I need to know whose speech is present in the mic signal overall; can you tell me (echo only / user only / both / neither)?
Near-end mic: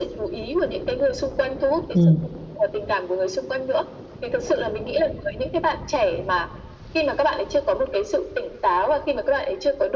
both